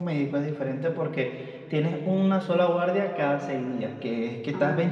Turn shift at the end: No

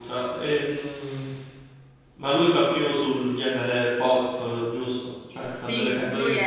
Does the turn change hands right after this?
Yes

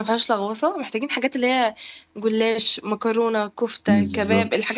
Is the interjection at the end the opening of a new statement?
No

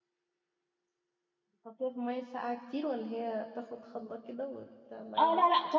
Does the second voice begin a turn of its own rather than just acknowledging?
Yes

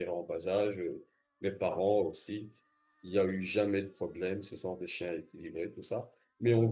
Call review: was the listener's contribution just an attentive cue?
Yes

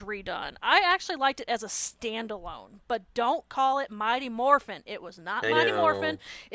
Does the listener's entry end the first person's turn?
No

